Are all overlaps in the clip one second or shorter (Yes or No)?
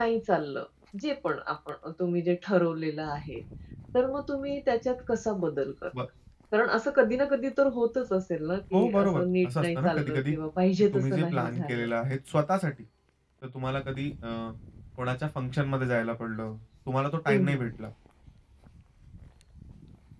No